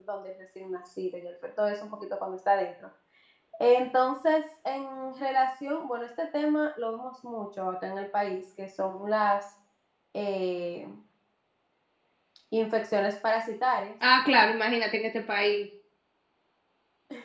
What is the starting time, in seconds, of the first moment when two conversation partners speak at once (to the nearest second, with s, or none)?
none